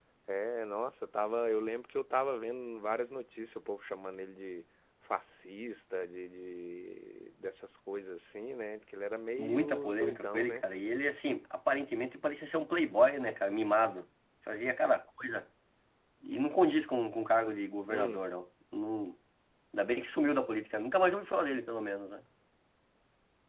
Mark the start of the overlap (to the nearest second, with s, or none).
9 s